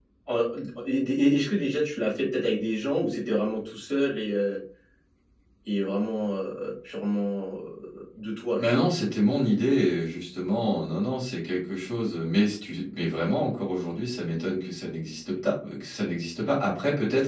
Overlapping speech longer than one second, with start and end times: none

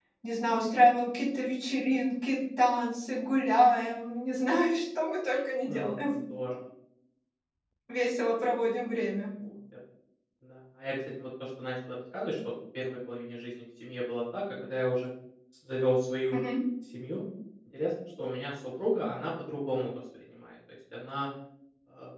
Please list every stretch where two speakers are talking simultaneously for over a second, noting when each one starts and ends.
none

